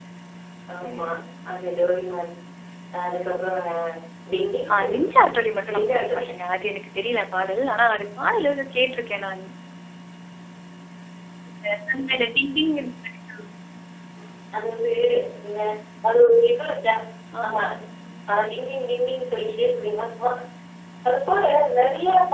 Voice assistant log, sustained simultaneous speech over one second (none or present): none